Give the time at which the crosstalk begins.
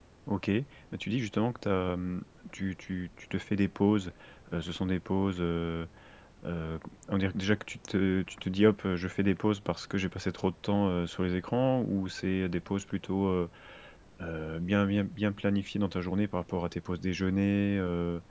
none

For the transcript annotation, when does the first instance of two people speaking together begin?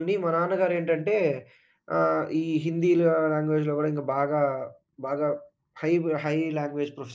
none

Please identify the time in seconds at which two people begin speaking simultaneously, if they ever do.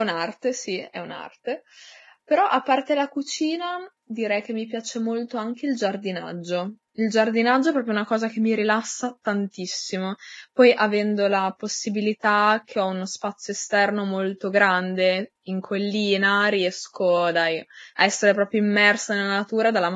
none

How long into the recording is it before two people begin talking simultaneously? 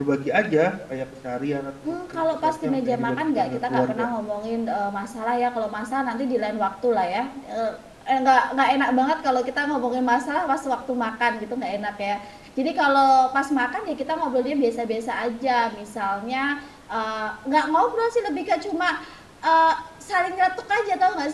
1.9 s

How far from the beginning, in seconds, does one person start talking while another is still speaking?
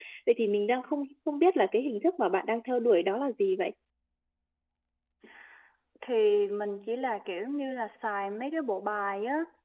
none

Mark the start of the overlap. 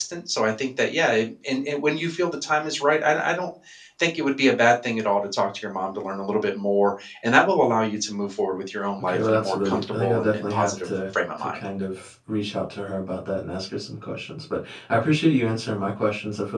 9.0 s

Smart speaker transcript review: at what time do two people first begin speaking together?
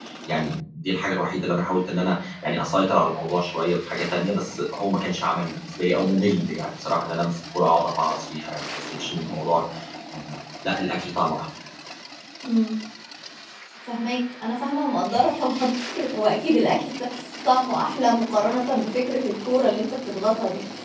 none

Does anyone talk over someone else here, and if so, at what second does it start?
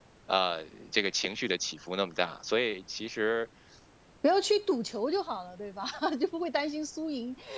none

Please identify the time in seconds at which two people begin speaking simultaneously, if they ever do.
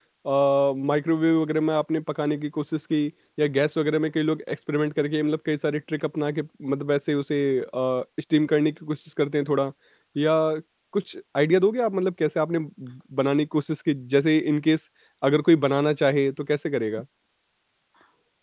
none

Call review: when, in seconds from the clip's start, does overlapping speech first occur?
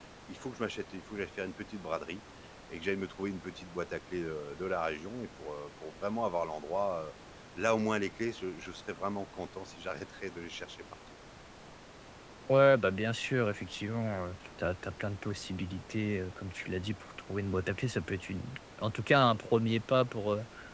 none

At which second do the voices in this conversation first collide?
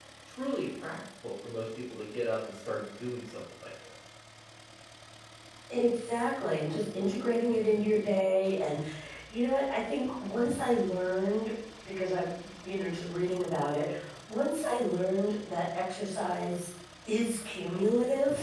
none

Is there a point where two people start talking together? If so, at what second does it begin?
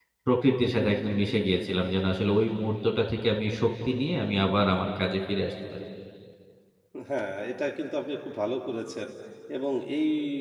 none

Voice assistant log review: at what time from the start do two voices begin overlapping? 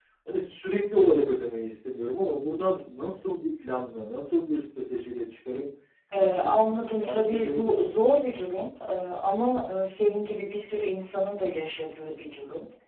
6.2 s

